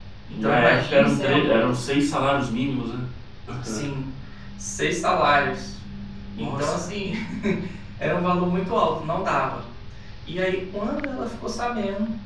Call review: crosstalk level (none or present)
present